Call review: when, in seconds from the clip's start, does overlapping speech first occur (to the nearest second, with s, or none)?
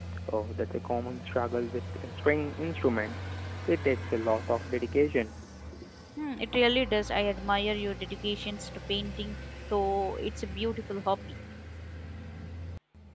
none